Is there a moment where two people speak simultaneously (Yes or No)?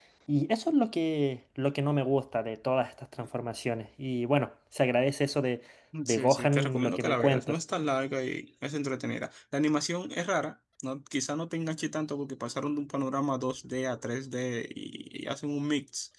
Yes